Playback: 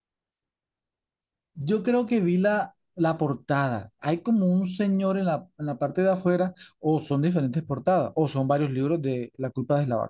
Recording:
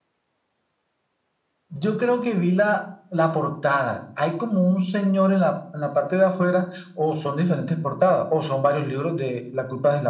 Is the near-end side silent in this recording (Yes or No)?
Yes